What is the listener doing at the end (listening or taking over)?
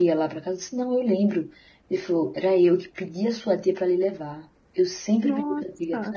listening